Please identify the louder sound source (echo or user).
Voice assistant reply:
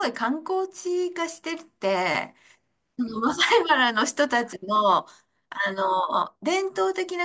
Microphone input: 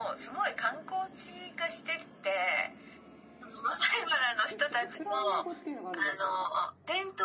echo